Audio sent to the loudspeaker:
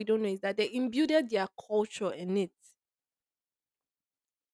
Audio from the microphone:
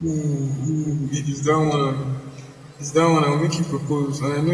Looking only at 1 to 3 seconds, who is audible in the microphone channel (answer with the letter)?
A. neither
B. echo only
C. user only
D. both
C